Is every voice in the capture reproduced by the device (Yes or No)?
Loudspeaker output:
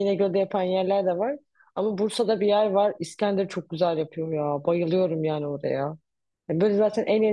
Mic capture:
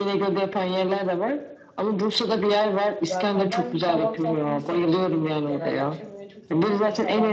No